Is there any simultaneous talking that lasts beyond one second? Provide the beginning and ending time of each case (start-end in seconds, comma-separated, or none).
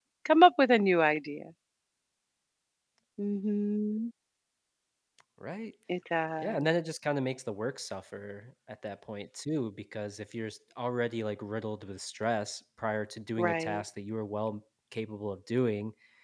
none